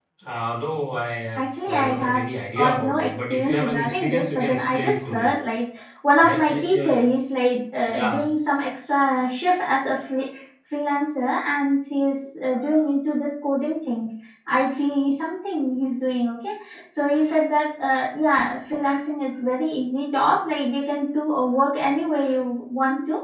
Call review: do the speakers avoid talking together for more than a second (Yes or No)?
No